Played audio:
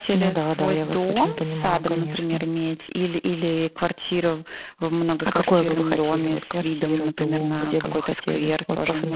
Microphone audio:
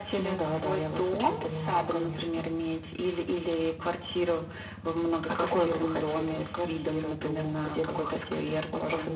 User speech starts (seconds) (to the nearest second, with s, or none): none